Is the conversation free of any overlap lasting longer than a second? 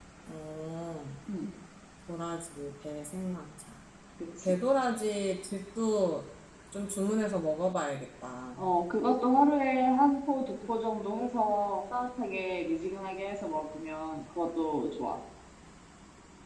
Yes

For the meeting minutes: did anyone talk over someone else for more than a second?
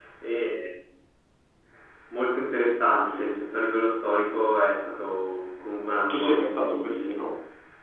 Yes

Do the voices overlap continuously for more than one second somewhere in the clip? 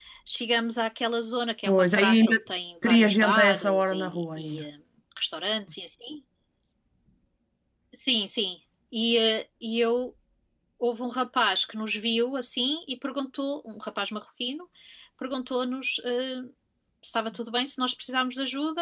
Yes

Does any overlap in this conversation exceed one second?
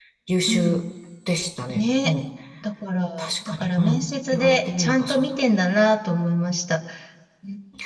Yes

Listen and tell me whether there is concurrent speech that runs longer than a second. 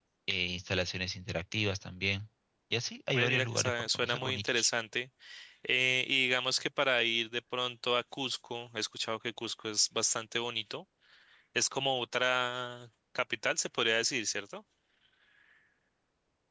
Yes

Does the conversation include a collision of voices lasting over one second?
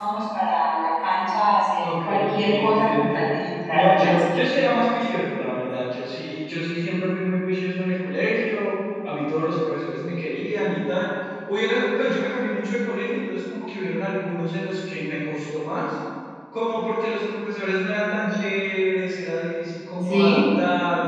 Yes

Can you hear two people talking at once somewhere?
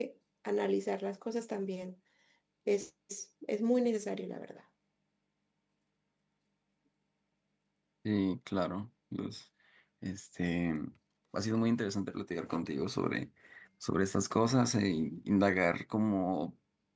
No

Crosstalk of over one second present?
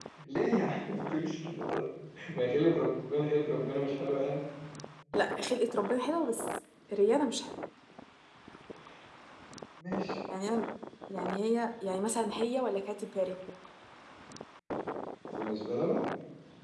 No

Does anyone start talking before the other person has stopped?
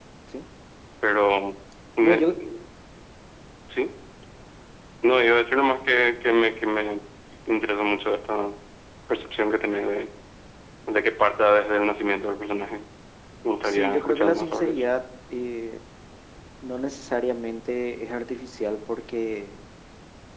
Yes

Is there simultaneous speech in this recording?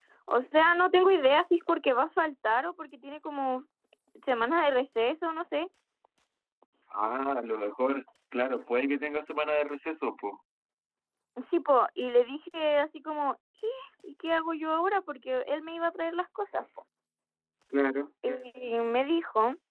No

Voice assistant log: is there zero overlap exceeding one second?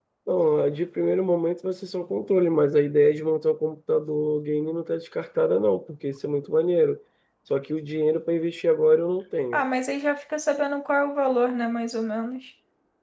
Yes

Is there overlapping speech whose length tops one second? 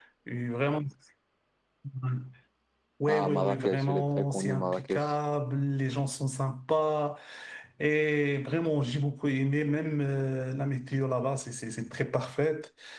Yes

